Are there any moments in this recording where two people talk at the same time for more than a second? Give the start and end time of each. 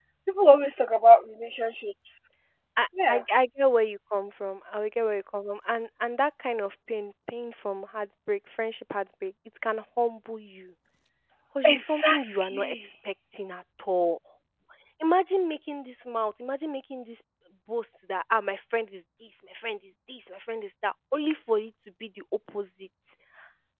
11.6-12.9

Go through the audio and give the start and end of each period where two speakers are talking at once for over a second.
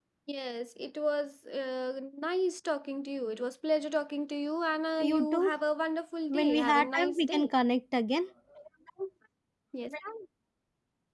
6.3-7.5

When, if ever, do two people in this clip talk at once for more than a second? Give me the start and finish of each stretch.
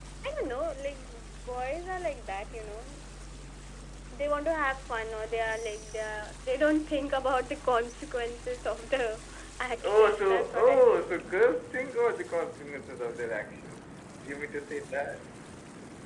9.8-11.1

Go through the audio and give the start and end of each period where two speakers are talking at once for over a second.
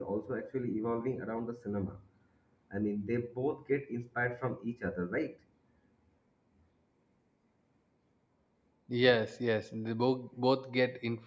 none

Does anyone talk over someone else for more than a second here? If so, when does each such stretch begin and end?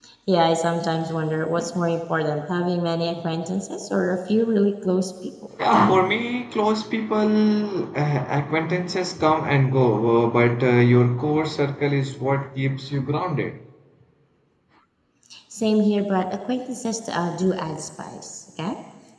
none

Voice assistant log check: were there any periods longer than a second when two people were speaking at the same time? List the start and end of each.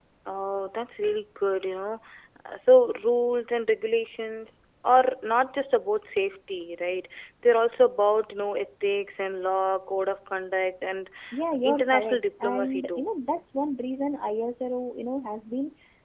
11.7-13.0

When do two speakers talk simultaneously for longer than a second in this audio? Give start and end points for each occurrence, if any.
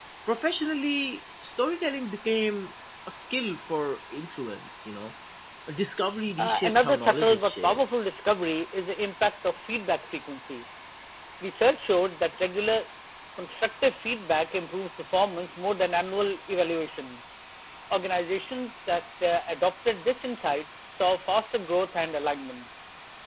6.4-7.8

